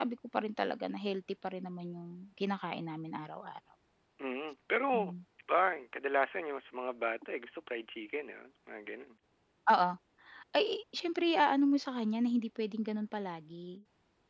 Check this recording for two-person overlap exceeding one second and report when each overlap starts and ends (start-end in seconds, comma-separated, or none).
none